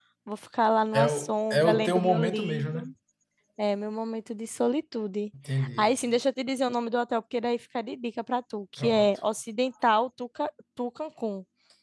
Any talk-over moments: Yes, from 1.0 s

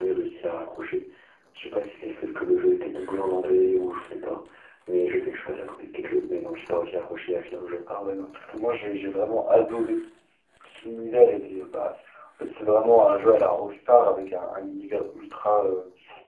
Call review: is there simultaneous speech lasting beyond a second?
No

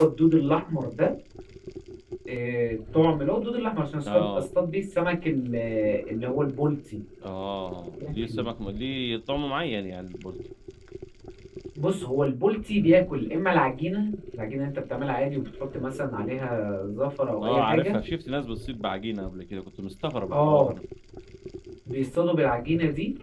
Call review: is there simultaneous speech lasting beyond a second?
No

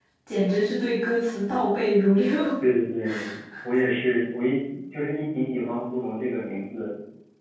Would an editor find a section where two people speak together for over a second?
No

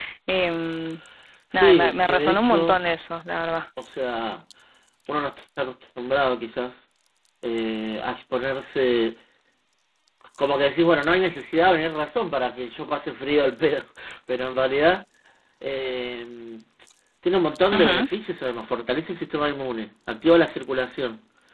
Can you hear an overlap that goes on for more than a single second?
Yes, from 1.5 s

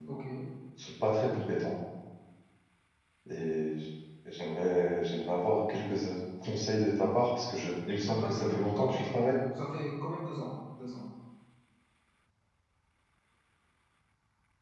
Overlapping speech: Yes, from 8.0 s

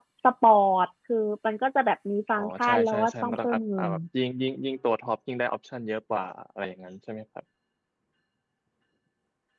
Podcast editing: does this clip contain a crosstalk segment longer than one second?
Yes, from 2.4 s

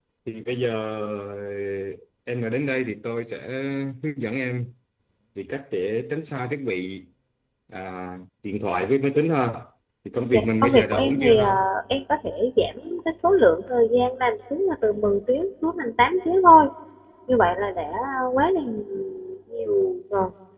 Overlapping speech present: Yes, from 10.3 s

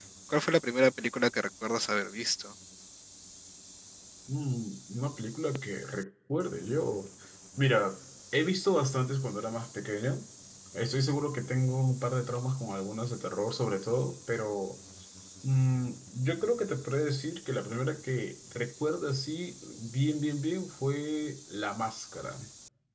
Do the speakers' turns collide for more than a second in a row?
No

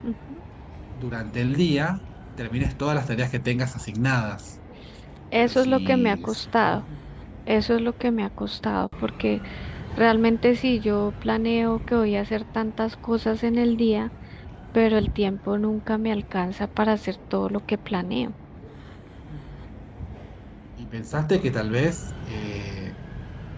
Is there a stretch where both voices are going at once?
Yes, from 5.4 s

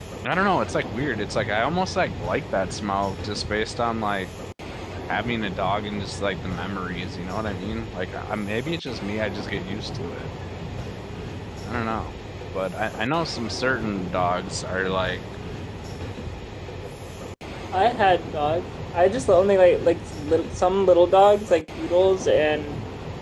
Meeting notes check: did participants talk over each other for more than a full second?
No

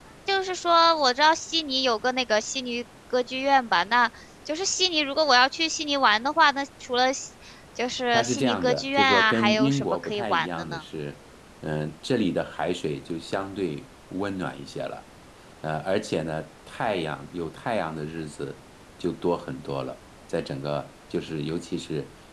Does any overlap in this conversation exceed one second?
Yes, from 8.1 s

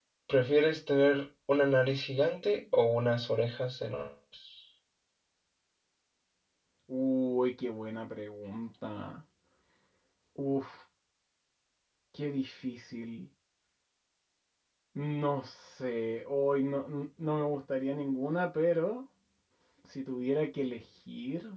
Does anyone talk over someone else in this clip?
No

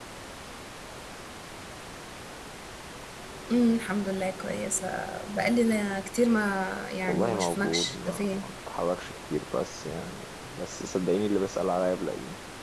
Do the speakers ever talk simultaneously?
Yes, from 7.0 s

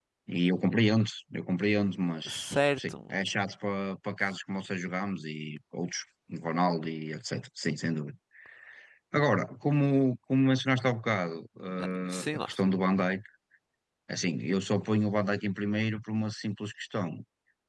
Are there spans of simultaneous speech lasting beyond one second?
No

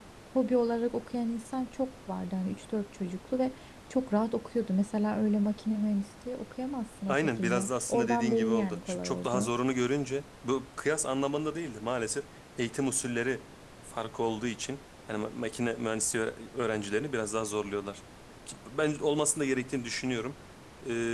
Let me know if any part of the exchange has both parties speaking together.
Yes, from 7.1 s

